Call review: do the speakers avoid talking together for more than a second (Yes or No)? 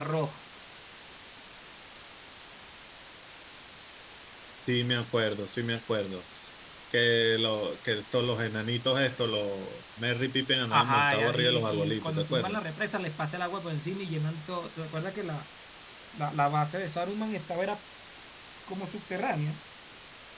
No